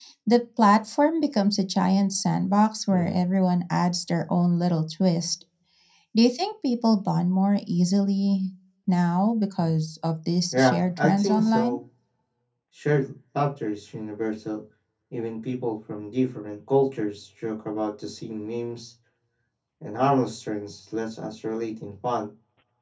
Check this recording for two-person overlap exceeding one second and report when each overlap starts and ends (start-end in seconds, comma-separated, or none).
10.5-11.8